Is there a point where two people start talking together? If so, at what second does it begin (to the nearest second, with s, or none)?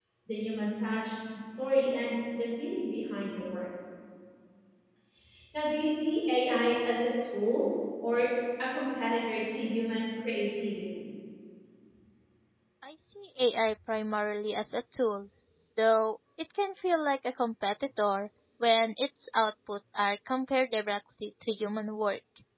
none